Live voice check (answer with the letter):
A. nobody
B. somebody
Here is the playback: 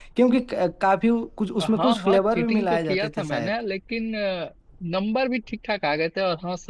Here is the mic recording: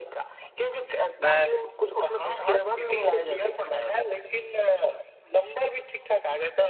B